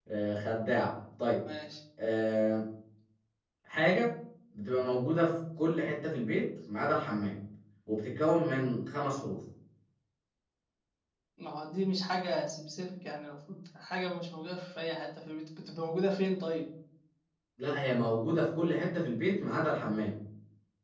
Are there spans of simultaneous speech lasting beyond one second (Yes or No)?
No